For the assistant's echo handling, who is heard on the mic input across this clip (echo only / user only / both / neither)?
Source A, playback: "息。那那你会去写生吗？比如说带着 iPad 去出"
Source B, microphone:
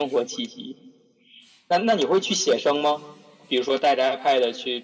echo only